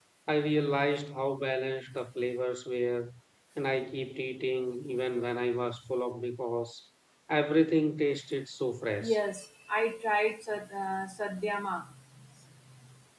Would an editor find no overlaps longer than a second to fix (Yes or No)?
Yes